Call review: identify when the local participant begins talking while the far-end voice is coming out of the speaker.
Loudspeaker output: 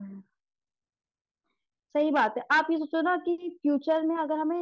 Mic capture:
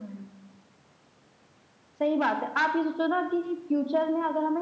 none

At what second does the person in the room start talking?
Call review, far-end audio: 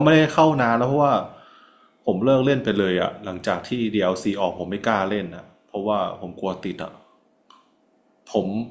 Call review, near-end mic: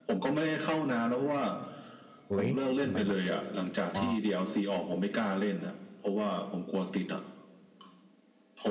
2.3 s

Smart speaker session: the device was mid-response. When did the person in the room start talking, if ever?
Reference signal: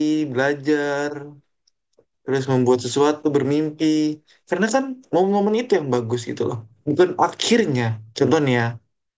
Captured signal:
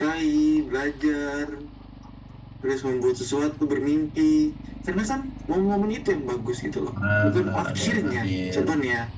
7.0 s

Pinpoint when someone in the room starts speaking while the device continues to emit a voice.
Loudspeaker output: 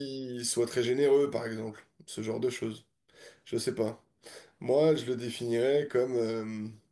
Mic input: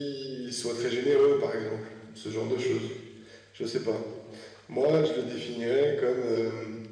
none

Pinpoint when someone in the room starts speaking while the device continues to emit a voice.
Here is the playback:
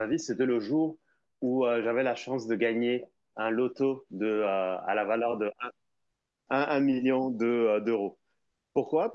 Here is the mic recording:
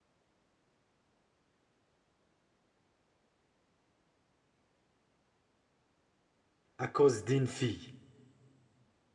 6.8 s

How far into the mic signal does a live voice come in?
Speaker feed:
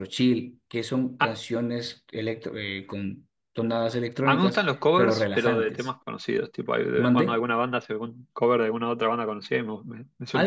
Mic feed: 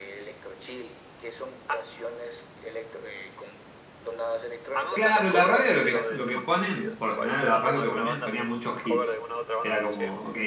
4.9 s

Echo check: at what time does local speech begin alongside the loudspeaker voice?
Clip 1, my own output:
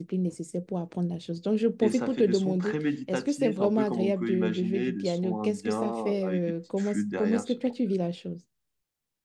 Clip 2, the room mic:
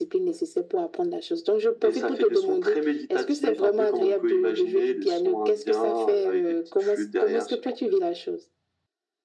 none

